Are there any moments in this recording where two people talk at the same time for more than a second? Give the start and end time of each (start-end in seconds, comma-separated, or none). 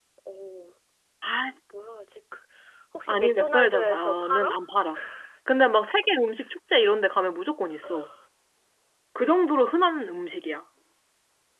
3.1-4.6